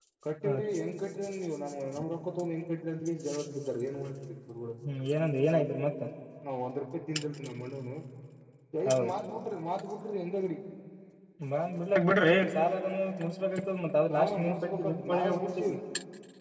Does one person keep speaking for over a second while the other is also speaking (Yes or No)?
Yes